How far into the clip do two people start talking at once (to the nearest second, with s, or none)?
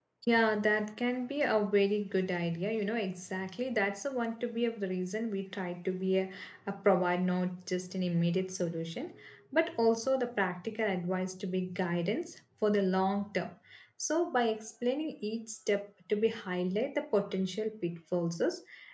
none